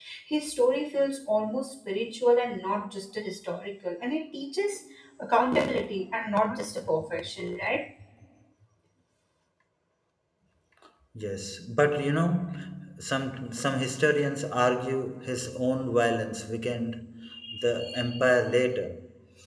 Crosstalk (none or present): none